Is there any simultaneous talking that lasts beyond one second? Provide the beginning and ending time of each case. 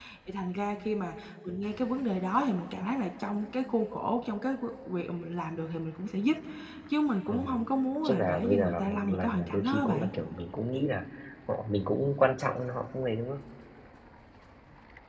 8.0-10.1

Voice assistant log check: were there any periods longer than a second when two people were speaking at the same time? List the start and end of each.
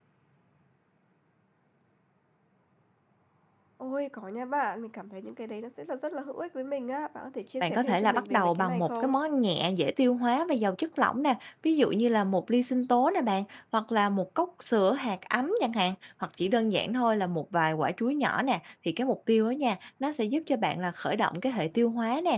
7.6-9.2

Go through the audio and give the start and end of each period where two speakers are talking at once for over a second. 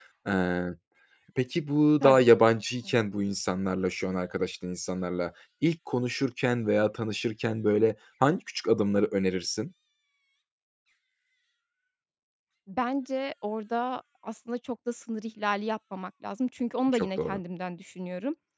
none

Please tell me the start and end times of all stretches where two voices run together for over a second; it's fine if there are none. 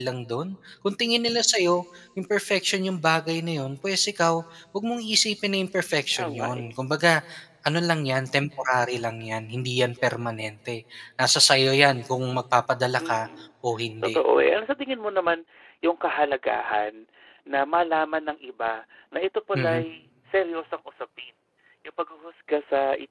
none

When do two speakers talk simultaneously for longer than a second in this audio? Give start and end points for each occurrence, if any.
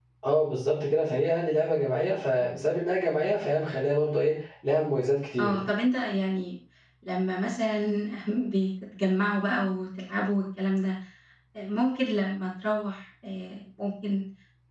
none

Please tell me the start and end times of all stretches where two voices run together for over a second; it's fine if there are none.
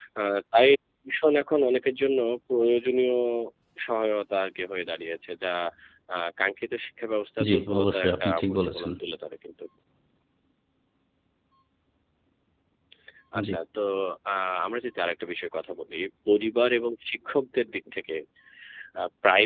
7.4-8.9

